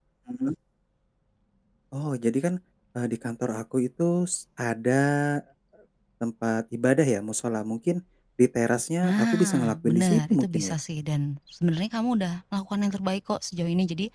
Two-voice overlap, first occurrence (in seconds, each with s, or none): 9.0 s